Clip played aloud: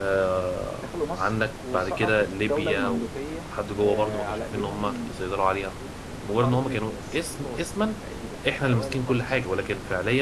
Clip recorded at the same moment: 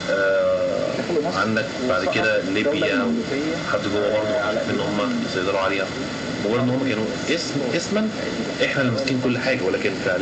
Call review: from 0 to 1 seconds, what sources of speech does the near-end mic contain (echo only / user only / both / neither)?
echo only